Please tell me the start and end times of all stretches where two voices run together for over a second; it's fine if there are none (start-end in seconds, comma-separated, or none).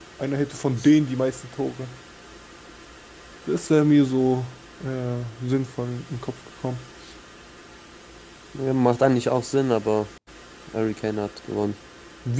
none